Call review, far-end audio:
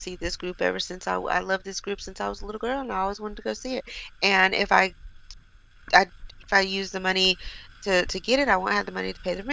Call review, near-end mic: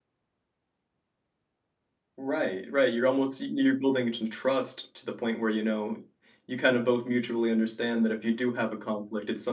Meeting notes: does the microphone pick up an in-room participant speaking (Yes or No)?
Yes